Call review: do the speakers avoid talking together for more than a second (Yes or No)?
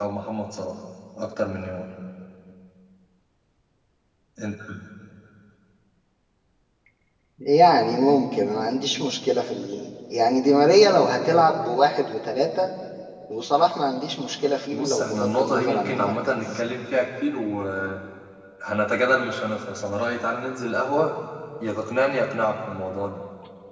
No